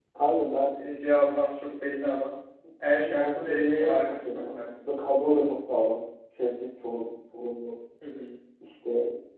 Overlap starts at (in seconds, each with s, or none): 3.0 s